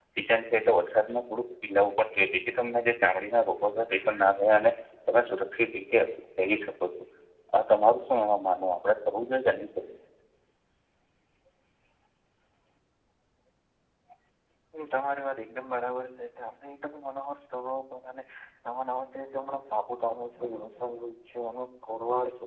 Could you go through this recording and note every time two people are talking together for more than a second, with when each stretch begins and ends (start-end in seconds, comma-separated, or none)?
none